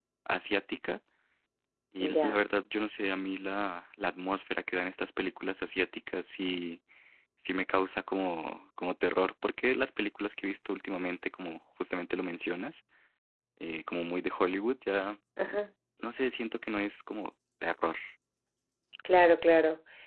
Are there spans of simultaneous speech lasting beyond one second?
No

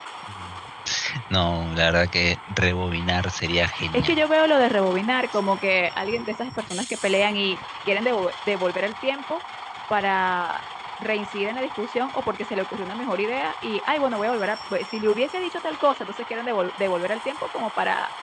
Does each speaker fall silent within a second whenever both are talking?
Yes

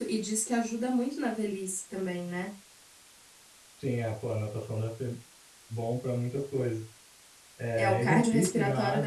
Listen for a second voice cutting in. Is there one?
Yes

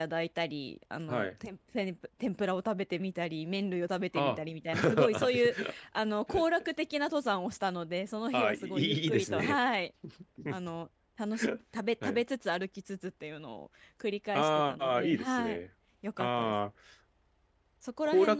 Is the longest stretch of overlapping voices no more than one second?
No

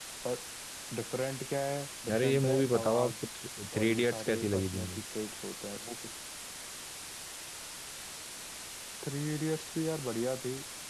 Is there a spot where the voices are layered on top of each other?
Yes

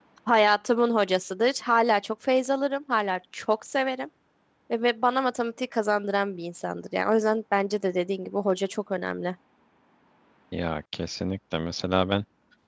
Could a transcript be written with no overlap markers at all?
Yes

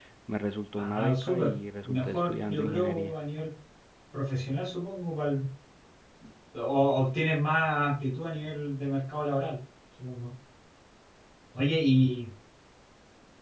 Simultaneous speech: Yes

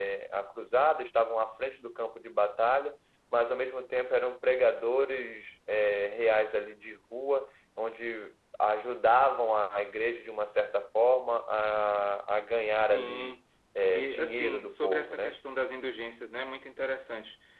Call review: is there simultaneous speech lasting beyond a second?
Yes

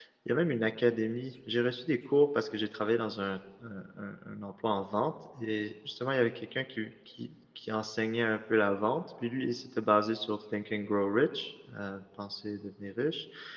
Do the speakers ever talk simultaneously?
No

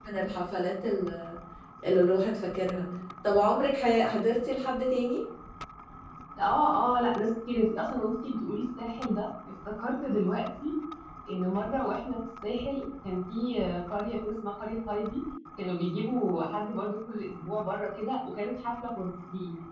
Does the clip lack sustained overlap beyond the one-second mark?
Yes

